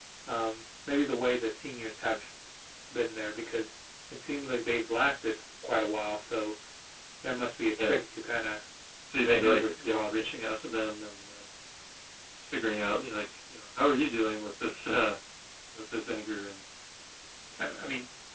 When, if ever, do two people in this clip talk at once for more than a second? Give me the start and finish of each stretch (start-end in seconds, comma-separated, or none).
9.2-10.4